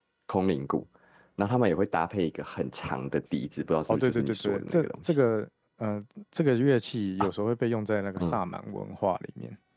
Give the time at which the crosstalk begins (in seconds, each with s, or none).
3.9 s